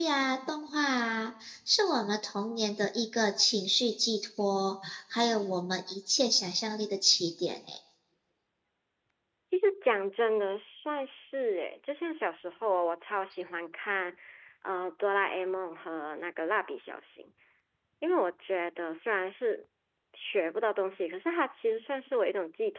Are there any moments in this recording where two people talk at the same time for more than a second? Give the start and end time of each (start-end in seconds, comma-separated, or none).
none